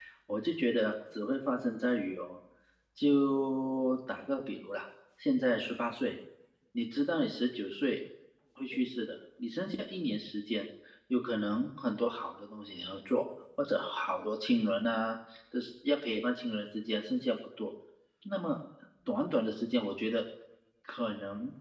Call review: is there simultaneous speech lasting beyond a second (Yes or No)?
No